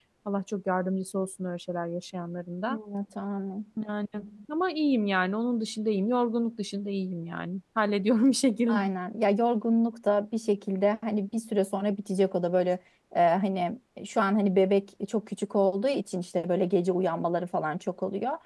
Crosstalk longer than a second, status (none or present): none